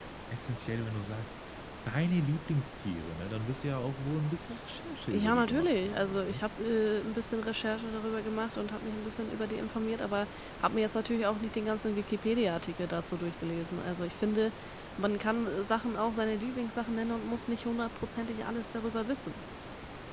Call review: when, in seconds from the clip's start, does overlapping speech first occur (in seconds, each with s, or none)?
5.1 s